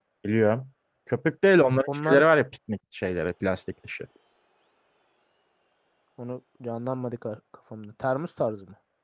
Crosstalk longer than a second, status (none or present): none